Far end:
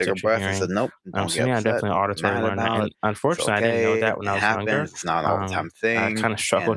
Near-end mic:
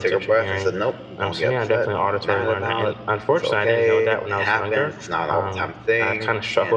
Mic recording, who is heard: echo only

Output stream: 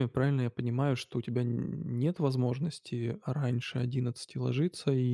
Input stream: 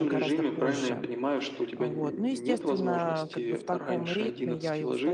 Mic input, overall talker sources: both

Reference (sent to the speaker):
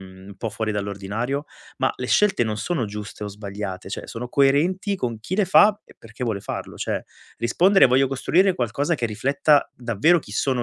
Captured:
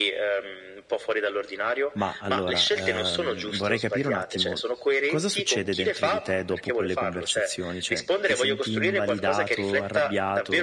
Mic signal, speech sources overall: both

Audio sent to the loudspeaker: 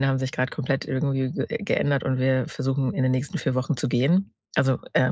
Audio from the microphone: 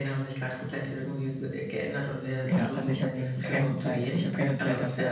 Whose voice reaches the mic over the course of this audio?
both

